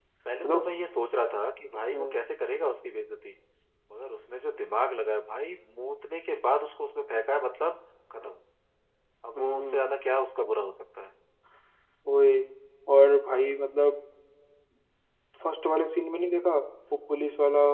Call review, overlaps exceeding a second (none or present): none